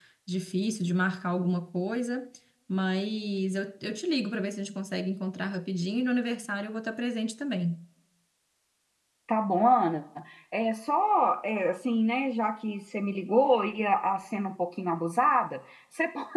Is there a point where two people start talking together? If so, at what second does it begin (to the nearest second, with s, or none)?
none